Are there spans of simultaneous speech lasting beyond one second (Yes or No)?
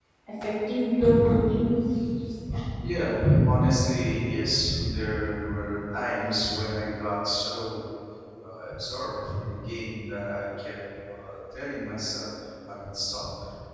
No